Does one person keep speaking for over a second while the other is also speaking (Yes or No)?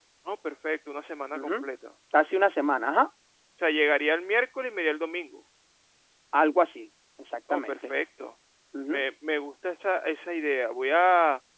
No